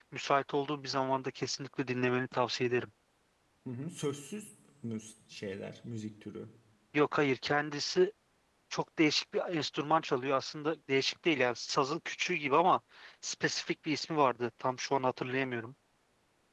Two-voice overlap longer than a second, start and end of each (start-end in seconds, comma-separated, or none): none